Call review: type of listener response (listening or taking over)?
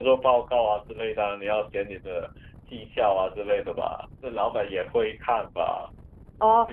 taking over